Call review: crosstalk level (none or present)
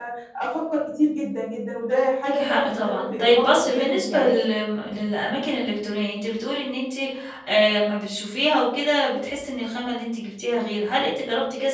present